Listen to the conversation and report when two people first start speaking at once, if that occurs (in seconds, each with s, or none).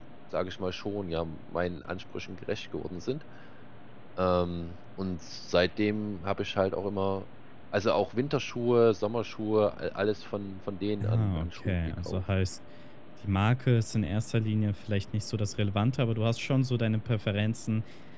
11.0 s